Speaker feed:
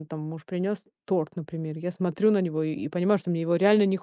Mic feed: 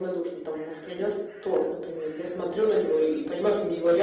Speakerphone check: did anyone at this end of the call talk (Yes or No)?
No